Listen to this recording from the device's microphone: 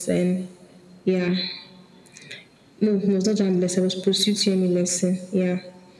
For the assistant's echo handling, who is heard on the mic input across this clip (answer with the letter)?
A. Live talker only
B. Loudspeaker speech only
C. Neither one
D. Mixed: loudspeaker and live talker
B